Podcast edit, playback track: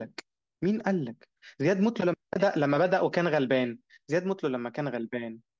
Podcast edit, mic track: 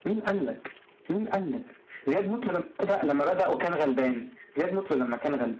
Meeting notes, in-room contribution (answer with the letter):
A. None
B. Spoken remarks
A